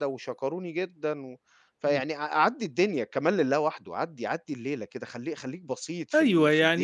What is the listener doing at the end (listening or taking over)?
taking over